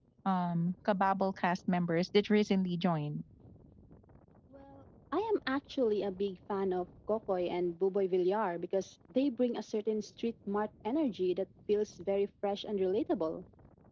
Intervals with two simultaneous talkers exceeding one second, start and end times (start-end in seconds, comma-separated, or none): none